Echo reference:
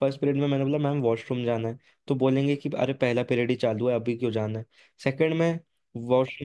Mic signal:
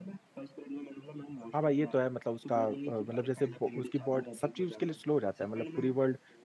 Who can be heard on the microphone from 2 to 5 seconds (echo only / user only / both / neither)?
both